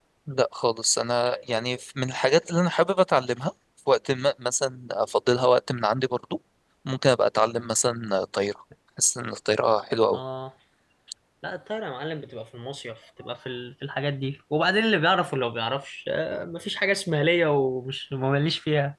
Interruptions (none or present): none